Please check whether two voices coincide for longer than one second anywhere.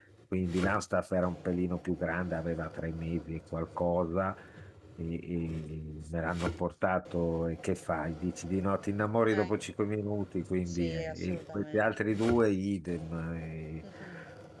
Yes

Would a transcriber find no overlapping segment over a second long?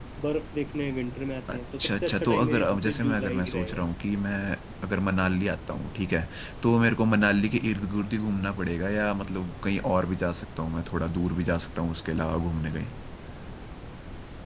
No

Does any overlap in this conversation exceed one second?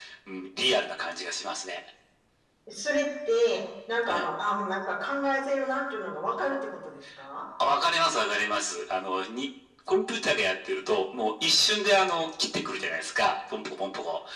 No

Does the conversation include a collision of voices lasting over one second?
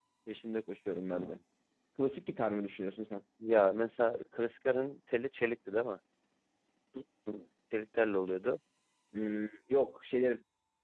No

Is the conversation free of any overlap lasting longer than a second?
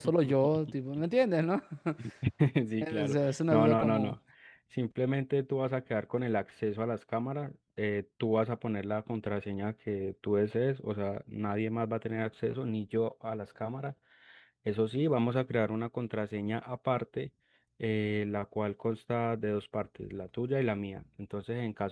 No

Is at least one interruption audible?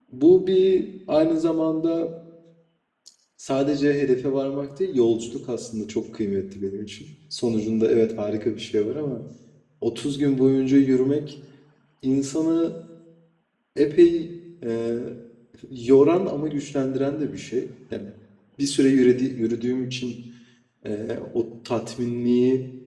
No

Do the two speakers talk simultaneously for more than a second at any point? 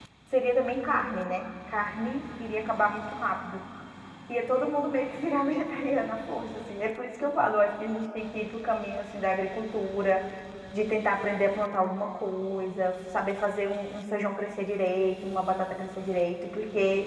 No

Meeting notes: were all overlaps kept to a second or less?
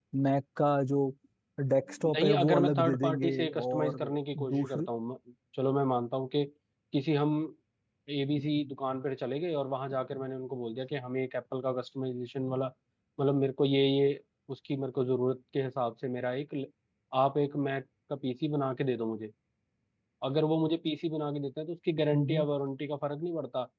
No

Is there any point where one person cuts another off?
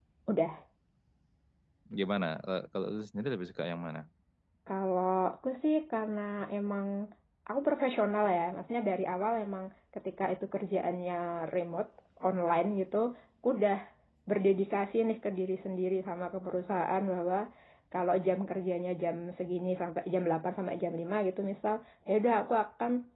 No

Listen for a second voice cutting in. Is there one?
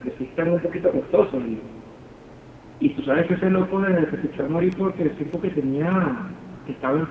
No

